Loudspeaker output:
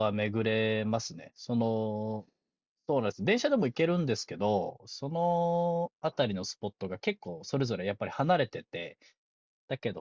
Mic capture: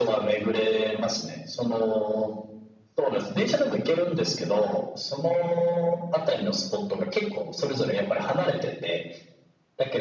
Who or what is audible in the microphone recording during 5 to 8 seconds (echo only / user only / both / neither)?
echo only